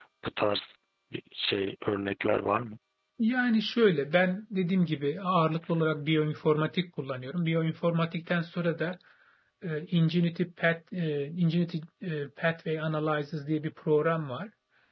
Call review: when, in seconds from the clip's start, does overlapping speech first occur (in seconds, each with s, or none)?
none